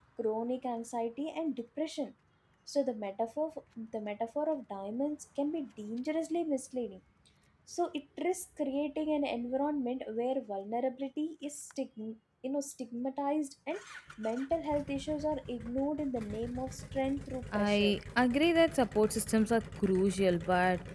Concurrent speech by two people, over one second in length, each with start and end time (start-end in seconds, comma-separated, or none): none